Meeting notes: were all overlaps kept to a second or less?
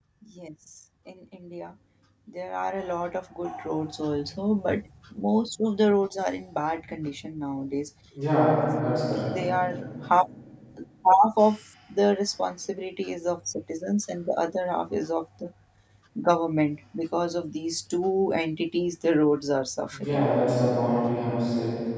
Yes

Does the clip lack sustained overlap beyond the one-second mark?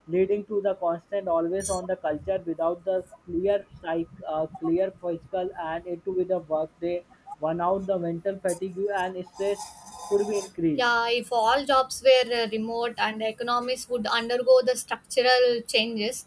Yes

